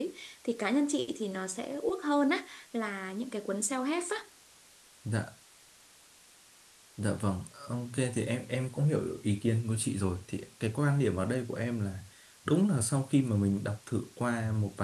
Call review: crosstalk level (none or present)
none